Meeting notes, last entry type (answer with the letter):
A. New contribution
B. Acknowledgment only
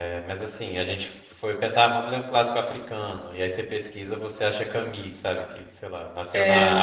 B